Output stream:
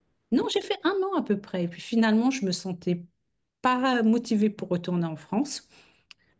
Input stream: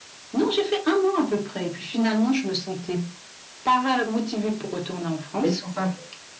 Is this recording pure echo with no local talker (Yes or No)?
No